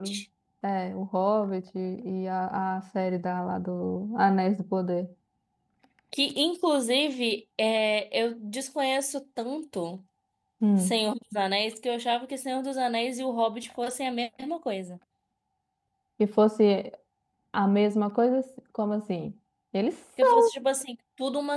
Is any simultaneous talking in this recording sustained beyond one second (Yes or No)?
No